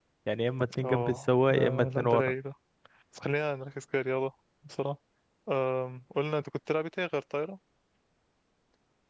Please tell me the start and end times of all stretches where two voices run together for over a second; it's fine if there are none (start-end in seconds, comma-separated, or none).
0.8-2.4